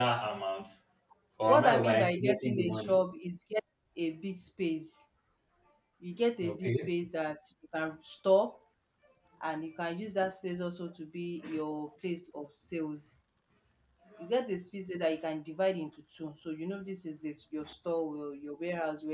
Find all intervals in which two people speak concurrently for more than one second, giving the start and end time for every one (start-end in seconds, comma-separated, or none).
1.5-3.0